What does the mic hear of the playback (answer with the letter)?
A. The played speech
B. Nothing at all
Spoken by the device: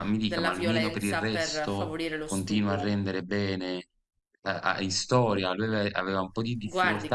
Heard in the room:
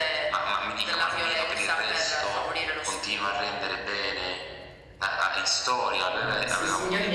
A